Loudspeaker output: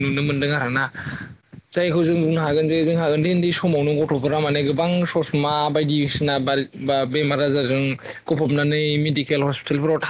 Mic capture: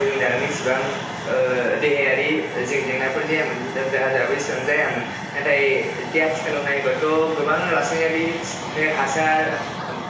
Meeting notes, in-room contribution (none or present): present